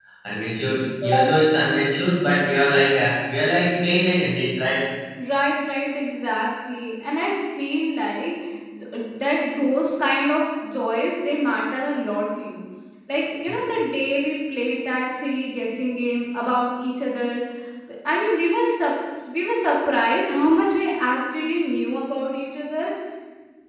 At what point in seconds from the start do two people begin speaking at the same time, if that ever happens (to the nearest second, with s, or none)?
none